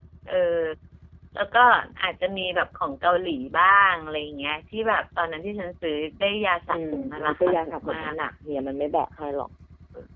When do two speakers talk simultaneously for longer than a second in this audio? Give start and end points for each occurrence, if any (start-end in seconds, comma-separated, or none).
6.7-8.3